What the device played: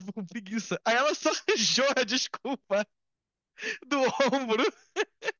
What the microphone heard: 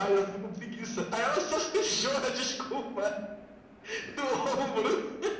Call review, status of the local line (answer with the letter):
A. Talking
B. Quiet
B